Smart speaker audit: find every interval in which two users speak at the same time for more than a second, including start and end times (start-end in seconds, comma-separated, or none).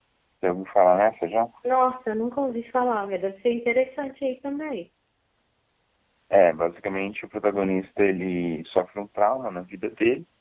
none